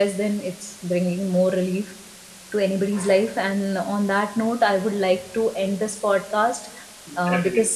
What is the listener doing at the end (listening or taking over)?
listening